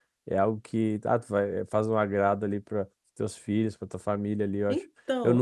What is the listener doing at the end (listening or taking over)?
listening